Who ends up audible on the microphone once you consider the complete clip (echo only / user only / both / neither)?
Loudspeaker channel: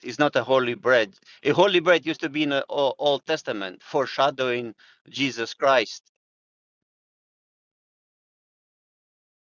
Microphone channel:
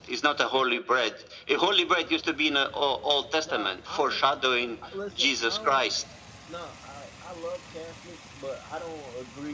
both